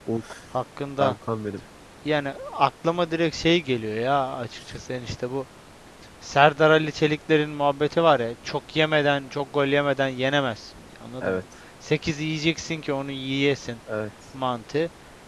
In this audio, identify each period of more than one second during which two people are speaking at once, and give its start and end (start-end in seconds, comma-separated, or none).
none